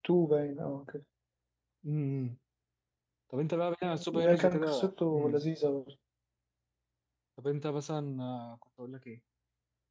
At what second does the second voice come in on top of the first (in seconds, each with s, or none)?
4.1 s